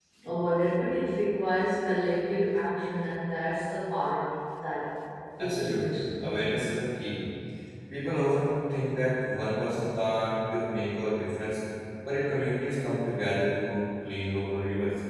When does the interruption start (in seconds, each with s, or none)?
5.4 s